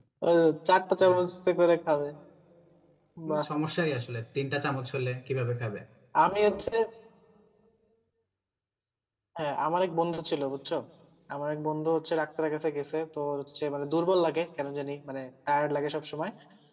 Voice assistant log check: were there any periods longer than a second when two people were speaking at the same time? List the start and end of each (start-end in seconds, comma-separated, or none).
none